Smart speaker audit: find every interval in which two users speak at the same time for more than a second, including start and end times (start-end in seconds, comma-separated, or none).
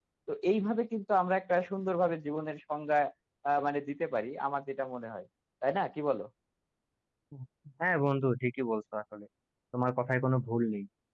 none